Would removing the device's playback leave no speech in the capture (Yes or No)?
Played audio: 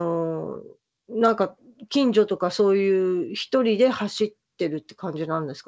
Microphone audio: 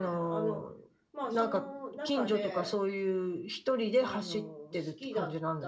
No